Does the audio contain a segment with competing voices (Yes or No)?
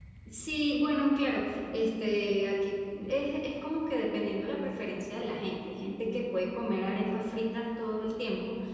No